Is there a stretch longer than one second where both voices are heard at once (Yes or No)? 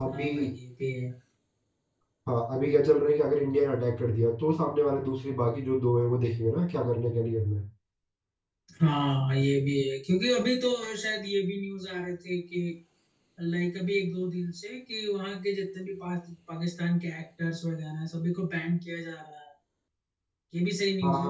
No